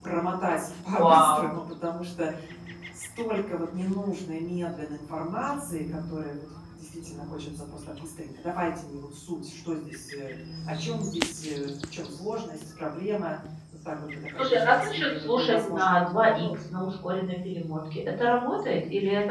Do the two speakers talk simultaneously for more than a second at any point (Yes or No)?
Yes